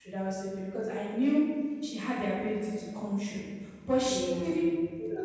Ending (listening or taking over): listening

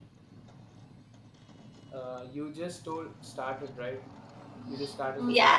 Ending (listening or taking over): taking over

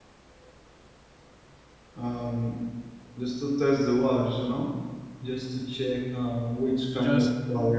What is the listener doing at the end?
listening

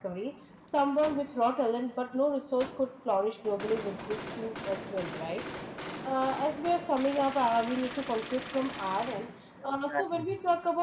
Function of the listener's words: listening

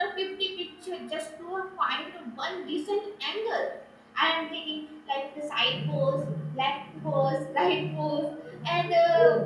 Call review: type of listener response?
listening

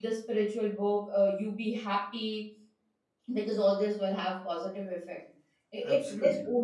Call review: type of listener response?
listening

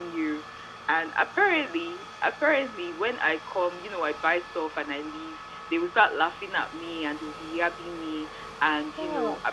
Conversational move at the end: listening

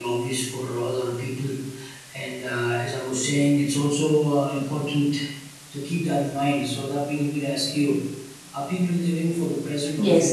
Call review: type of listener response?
taking over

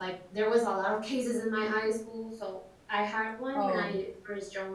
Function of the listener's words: listening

